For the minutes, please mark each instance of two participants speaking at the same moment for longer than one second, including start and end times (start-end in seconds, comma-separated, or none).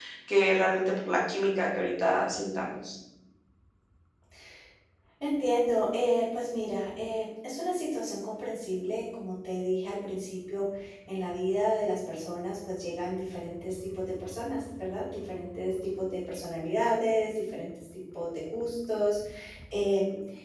none